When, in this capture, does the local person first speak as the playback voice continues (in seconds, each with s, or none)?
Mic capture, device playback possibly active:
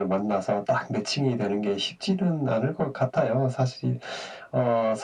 none